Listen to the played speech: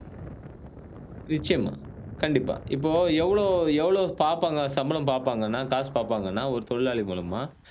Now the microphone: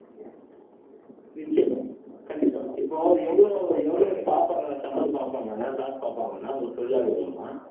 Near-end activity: present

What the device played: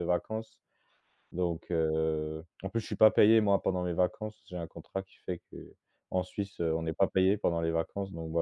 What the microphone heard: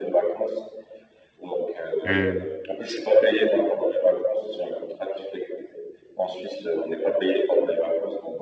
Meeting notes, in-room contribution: present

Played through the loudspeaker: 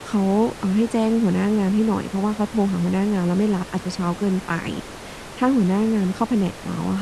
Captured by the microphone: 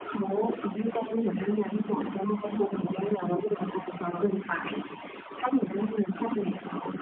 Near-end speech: none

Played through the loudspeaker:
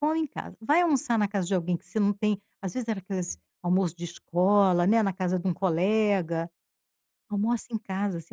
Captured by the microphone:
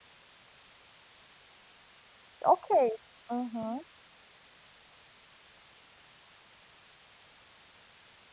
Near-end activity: present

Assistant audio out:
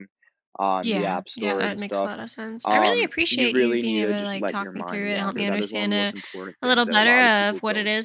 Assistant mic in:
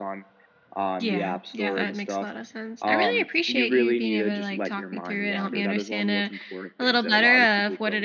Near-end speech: none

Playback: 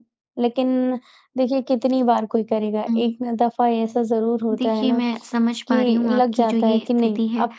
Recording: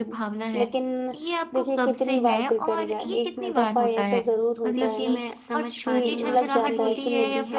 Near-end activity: present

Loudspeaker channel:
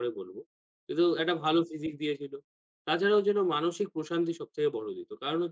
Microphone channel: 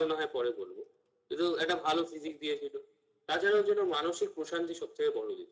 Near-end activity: none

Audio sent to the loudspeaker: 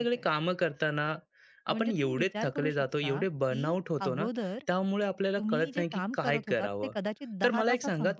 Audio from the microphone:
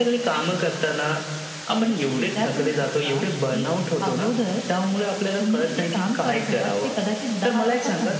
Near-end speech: none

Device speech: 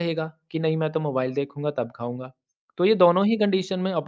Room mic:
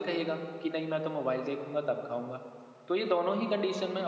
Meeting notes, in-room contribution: none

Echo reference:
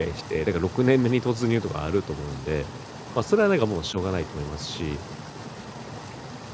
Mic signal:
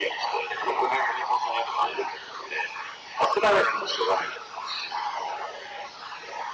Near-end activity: none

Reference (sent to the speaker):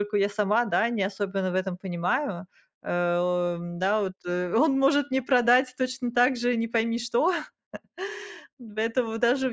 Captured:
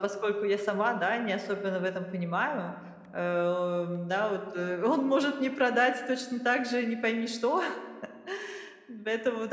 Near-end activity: none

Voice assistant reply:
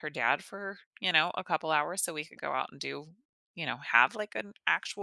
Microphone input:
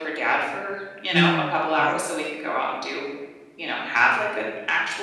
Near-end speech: present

